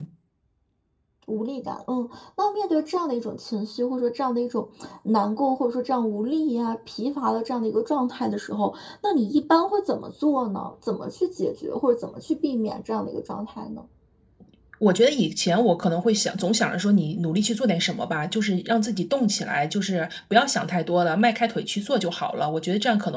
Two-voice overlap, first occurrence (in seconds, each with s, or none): none